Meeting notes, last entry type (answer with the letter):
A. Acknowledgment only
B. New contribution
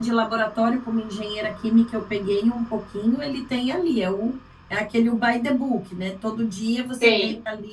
A